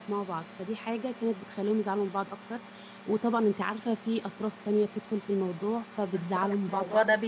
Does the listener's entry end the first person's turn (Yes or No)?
Yes